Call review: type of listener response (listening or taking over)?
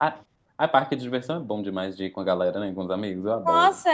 taking over